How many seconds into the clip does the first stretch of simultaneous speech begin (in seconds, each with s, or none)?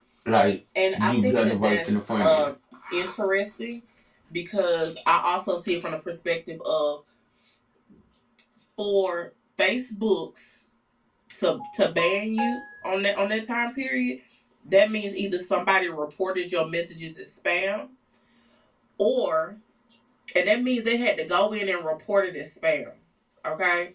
0.9 s